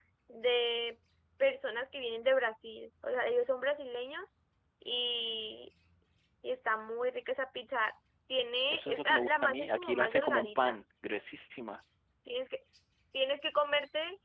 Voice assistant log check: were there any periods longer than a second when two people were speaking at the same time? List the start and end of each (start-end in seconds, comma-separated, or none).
8.7-10.8